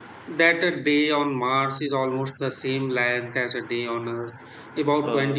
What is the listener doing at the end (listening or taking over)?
listening